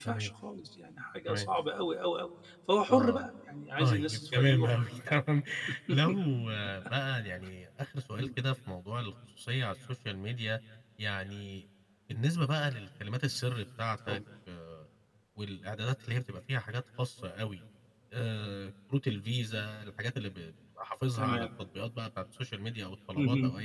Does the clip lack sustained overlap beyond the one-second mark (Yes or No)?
No